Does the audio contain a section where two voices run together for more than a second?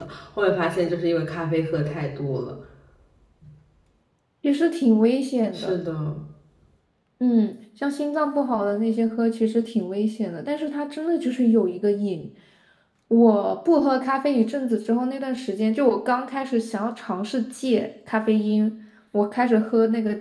No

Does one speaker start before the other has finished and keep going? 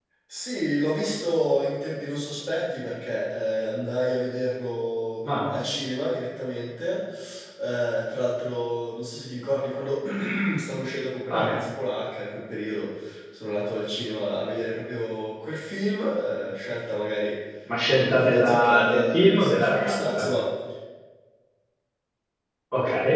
Yes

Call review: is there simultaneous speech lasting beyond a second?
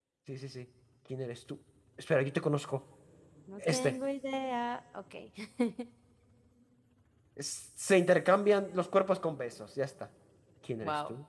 No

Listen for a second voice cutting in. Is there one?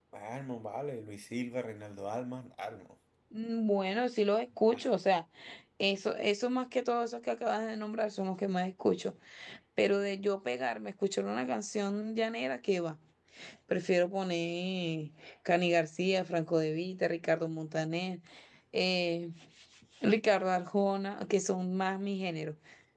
No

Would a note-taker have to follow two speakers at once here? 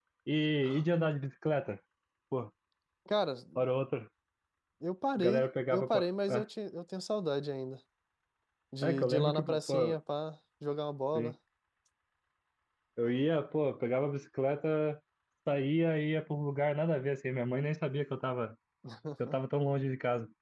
Yes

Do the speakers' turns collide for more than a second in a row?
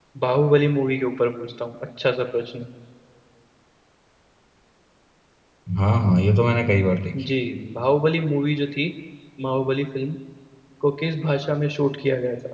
No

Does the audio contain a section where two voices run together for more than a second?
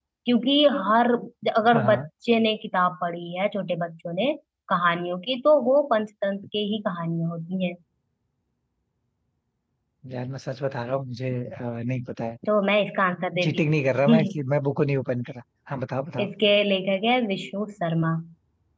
No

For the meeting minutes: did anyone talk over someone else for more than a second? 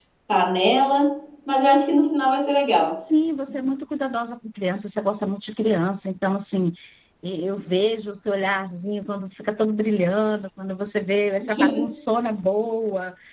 No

